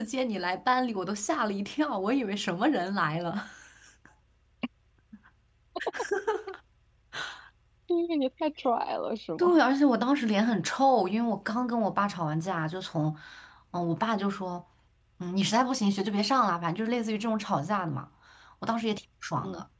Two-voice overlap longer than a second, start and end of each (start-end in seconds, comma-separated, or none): none